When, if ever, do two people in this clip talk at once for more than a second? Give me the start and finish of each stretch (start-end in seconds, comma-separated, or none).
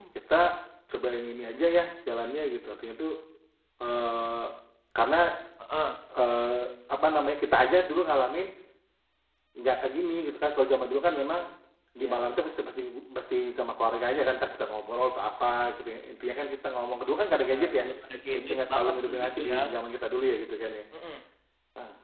18.3-19.6